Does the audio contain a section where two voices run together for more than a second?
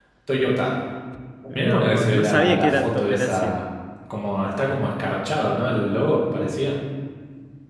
Yes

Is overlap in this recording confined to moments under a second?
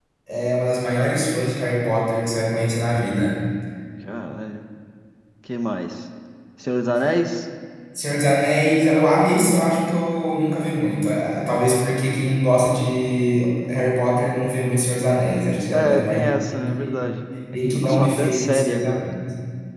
No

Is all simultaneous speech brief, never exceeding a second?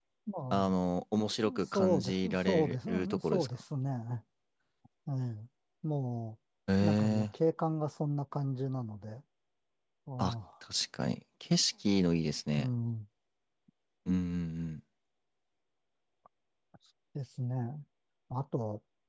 No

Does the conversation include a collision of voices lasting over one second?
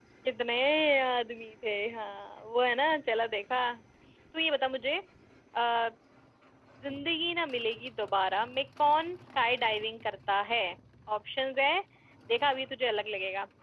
No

